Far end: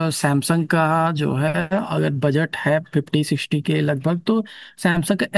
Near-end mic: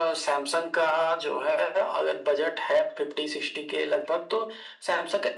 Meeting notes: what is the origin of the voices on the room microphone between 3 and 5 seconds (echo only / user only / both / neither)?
echo only